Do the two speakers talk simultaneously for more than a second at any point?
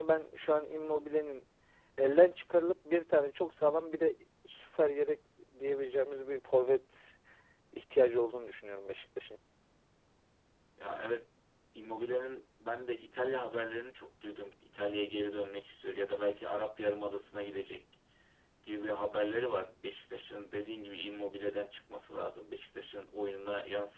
No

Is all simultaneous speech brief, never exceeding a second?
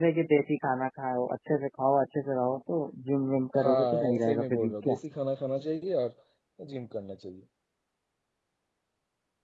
No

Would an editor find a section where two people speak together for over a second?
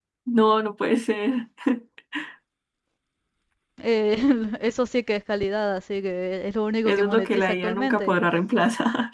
Yes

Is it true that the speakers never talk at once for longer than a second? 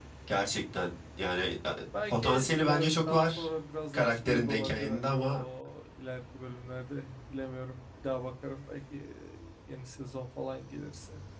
No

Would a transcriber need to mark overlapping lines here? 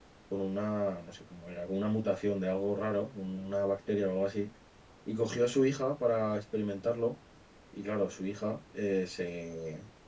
No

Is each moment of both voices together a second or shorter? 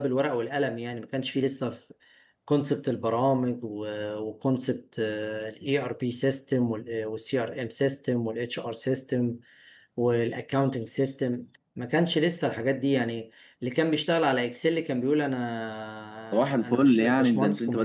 No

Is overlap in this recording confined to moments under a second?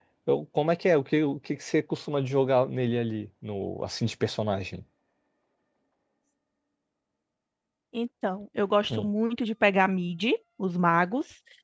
Yes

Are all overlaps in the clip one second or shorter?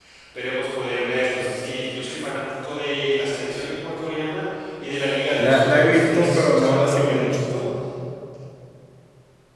No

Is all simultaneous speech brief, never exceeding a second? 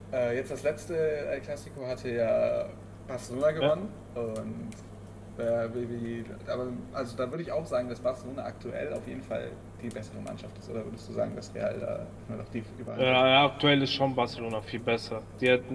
Yes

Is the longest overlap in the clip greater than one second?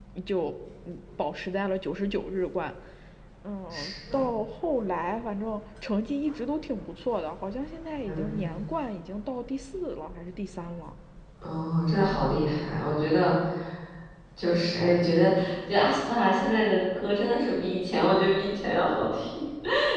No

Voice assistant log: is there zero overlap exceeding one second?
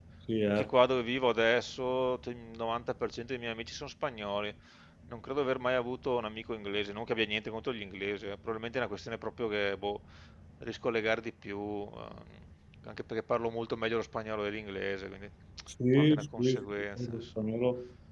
No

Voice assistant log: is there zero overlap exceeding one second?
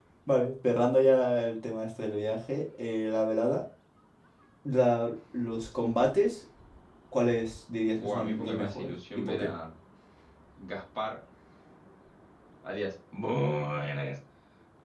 No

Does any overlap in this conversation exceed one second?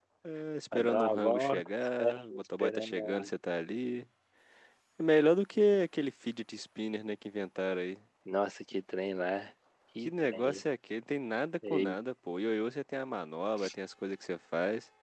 Yes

